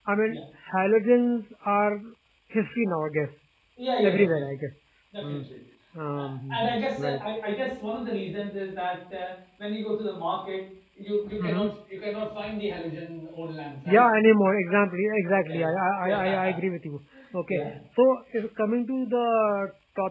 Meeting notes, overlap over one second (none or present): present